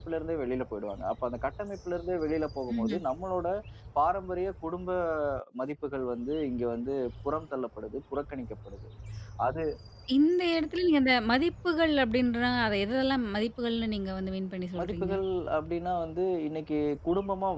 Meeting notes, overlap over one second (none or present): none